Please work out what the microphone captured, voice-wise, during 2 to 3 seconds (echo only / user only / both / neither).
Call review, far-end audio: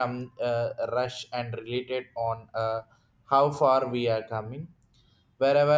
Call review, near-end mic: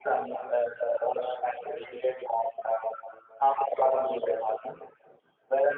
echo only